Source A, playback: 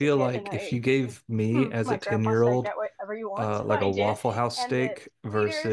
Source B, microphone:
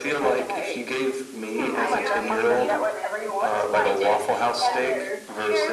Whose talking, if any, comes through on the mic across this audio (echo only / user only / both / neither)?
both